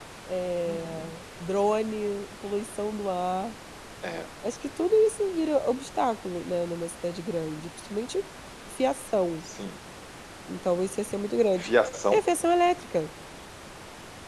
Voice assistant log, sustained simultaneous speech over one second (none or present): none